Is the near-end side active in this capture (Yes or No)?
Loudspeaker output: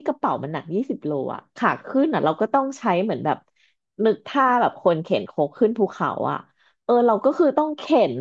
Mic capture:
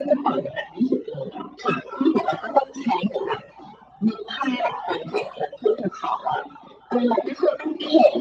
No